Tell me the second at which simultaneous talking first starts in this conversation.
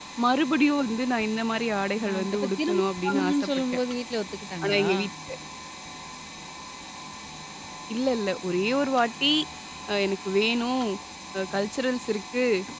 2 s

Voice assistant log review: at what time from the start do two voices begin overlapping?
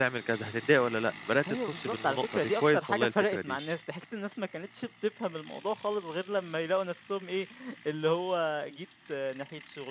1 s

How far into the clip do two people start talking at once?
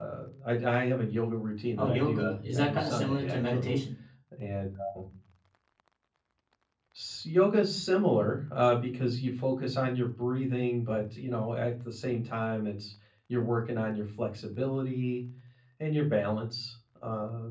2 s

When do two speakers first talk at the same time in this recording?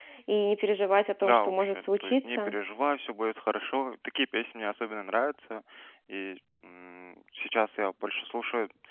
1 s

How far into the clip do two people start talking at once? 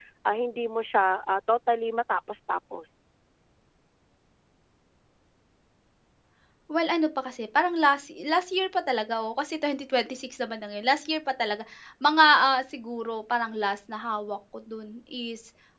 none

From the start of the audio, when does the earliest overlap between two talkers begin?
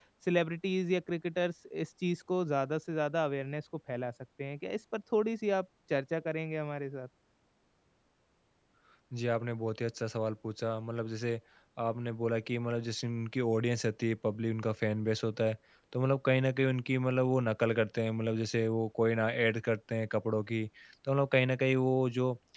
none

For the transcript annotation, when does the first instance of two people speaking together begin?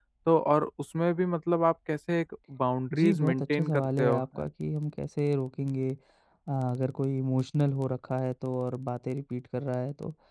3 s

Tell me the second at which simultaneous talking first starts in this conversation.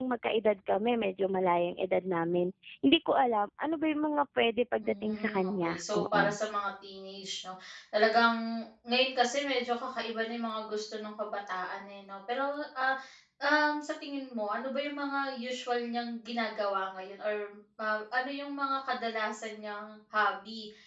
5 s

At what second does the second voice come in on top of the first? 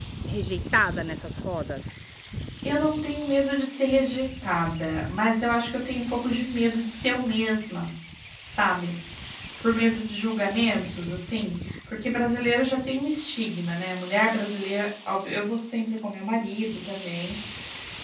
none

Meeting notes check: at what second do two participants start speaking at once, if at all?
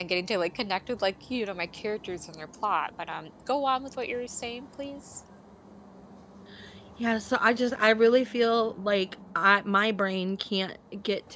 none

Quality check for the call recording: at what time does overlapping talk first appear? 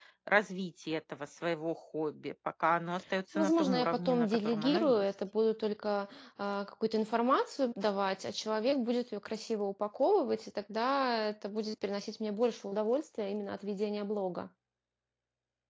3 s

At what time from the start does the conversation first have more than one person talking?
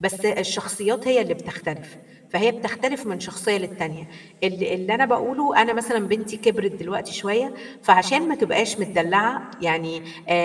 none

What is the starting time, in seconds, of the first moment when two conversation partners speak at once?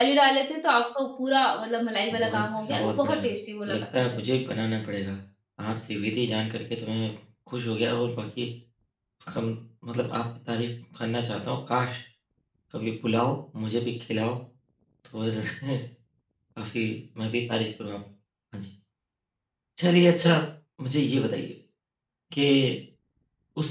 2 s

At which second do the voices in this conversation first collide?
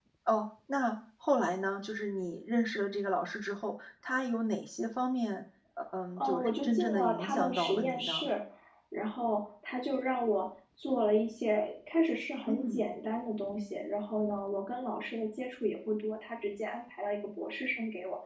6 s

